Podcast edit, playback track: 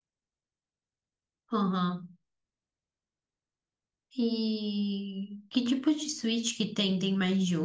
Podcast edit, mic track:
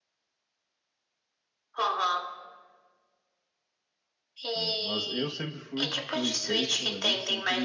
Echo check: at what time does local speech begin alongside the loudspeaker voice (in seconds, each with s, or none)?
4.5 s